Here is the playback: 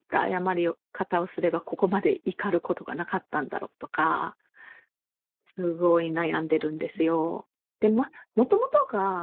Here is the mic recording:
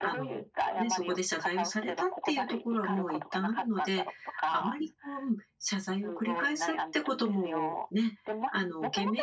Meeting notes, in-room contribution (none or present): present